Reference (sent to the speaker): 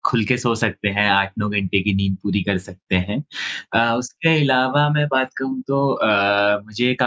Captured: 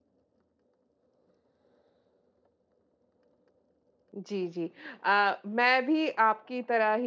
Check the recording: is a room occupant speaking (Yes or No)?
Yes